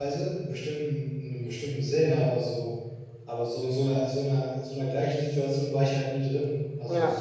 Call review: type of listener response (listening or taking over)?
listening